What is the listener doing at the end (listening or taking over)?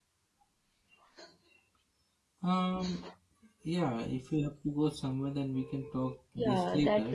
taking over